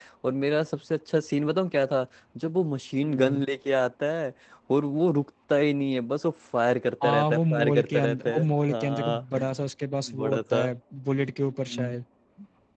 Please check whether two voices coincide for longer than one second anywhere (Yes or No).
Yes